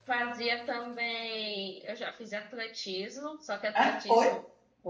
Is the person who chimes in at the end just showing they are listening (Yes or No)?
Yes